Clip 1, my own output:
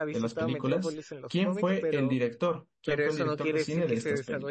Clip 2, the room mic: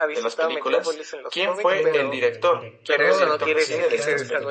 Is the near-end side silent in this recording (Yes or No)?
No